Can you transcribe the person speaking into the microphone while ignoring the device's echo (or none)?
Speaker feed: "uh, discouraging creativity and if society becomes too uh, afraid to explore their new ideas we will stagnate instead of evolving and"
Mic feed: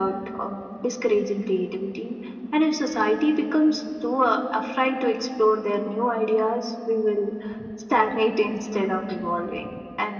none